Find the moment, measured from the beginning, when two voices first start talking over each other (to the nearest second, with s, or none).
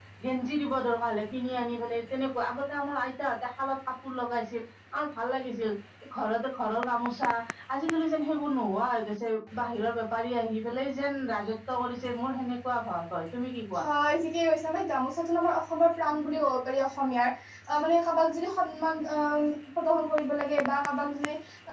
none